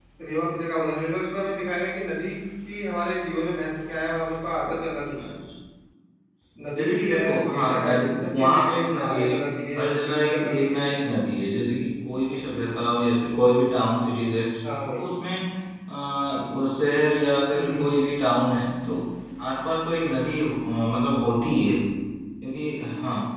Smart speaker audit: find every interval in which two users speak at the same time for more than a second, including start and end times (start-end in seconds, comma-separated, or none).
6.8-9.3, 9.8-10.9